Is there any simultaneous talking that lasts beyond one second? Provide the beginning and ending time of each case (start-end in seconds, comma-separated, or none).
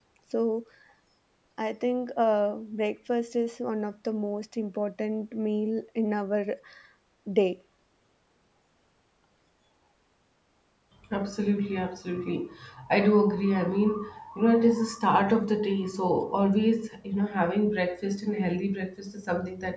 none